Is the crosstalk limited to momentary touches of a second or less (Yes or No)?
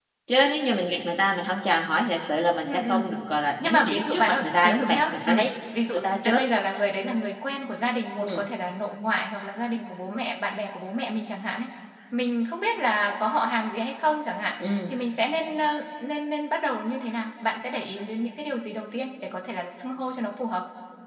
No